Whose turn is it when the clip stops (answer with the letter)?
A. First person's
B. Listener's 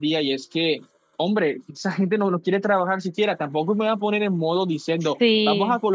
A